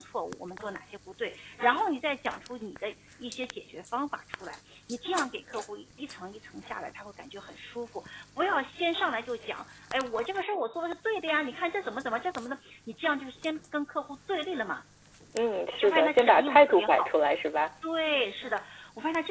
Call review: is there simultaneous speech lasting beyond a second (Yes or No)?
Yes